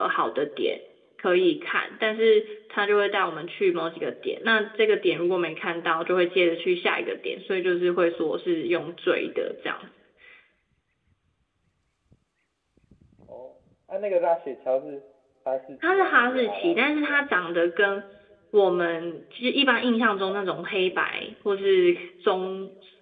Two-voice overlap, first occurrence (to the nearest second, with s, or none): 16 s